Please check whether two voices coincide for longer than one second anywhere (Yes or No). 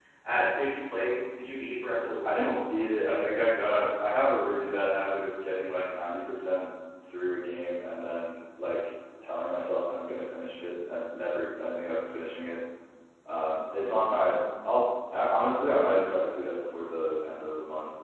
No